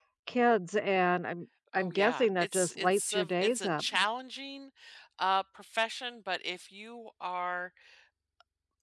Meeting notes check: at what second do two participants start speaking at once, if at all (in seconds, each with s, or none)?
1.7 s